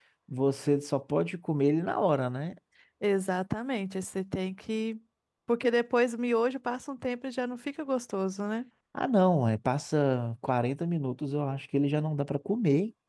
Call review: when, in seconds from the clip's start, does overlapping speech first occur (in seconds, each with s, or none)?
none